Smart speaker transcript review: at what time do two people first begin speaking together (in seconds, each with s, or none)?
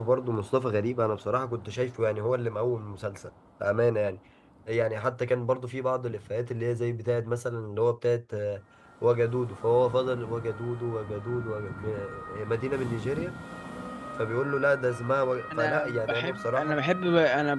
15.5 s